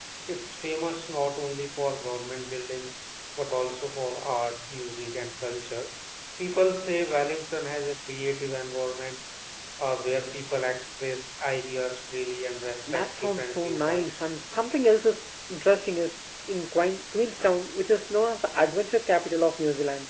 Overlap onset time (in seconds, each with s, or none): 12.9 s